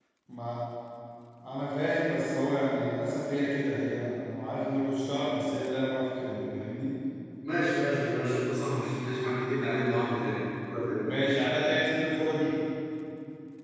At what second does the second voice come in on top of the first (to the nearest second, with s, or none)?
none